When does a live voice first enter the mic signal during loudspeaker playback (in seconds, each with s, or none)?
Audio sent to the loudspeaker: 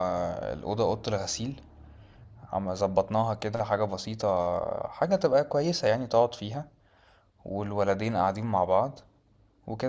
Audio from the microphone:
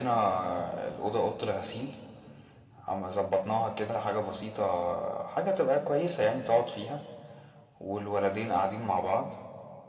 none